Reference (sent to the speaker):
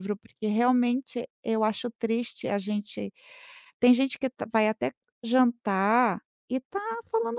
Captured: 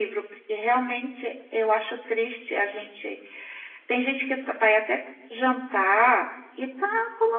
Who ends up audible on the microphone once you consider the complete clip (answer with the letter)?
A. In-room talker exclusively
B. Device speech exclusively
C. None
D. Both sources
B